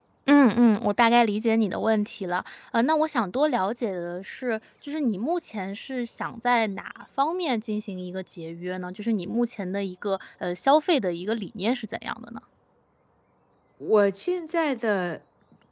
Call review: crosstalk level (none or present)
none